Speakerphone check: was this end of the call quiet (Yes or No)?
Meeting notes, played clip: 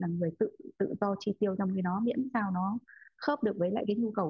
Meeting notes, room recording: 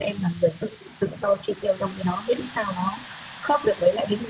Yes